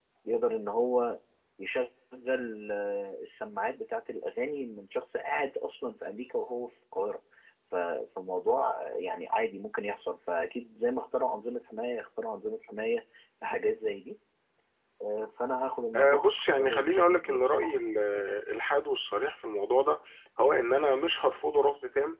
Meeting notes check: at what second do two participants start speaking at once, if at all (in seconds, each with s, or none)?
15.9 s